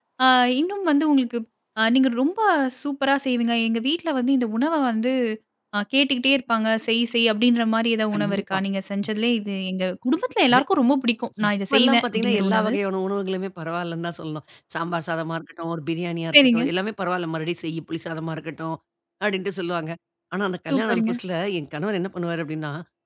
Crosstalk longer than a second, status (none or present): present